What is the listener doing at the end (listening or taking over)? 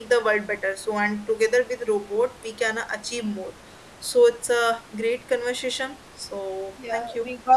taking over